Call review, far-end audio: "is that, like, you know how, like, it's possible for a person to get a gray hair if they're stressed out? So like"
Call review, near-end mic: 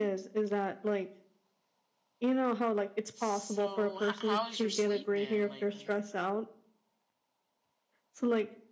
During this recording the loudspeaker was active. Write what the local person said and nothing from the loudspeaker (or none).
So, h how has your sleep been lately?